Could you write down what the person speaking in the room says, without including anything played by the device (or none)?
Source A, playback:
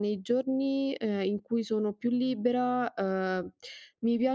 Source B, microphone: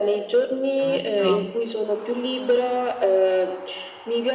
Certo.